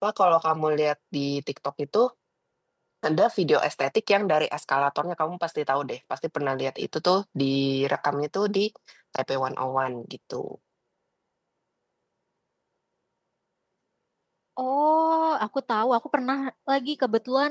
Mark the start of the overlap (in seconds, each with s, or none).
none